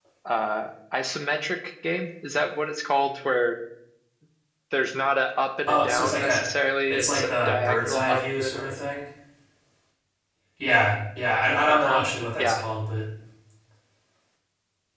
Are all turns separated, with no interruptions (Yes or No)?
No